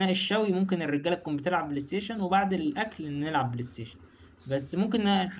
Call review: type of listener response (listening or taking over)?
listening